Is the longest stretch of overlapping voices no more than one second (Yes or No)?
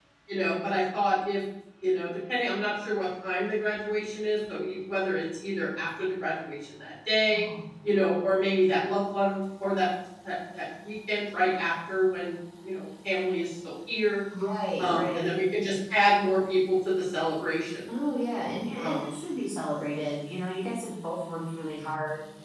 Yes